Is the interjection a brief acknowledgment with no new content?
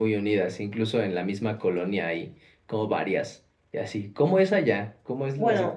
No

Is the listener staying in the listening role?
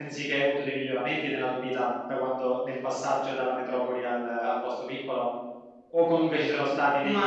Yes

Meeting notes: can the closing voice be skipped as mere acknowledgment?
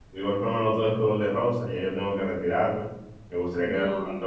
Yes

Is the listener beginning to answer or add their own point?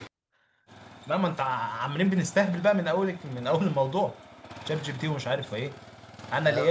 Yes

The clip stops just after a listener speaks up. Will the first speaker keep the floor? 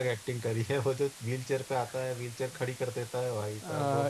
No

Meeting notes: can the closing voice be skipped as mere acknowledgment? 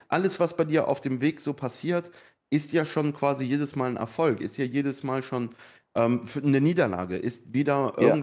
Yes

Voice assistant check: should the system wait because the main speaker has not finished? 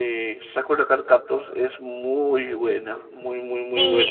No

